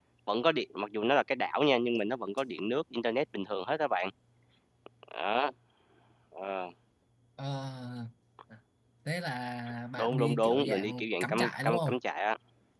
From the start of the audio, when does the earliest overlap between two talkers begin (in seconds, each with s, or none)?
10.0 s